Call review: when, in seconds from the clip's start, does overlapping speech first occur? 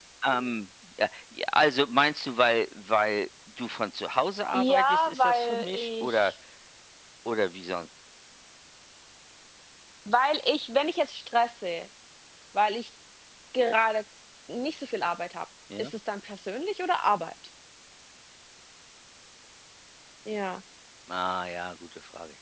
5 s

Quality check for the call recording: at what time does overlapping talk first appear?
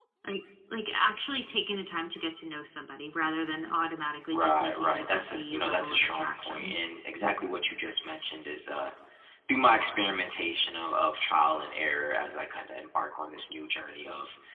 4 s

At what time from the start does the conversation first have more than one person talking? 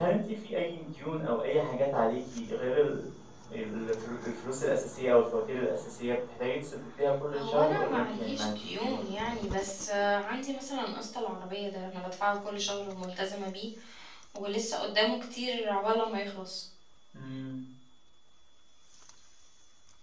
7 s

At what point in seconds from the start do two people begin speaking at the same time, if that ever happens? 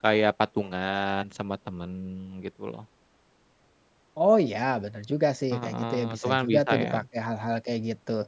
6 s

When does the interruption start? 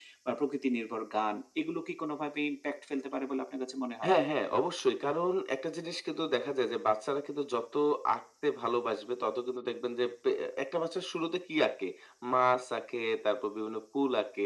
none

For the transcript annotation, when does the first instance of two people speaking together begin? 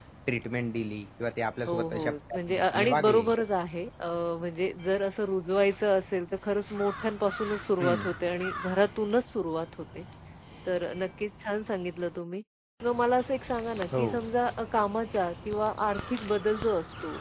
2 s

